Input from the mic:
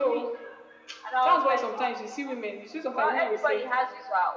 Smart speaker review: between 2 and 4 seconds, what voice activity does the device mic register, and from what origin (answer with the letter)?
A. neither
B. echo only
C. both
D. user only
B